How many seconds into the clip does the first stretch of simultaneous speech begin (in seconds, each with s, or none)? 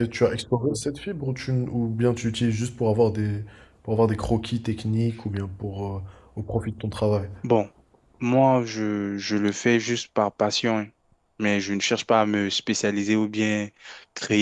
none